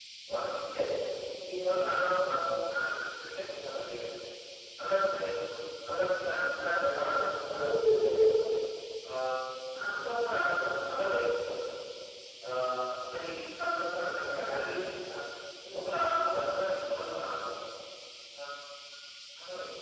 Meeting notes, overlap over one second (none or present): present